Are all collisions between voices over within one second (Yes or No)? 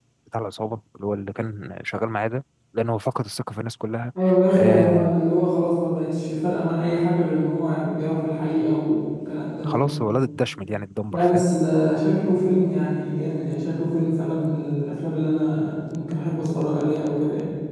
Yes